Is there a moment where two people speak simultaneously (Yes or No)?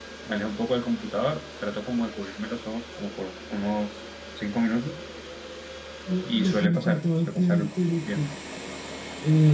Yes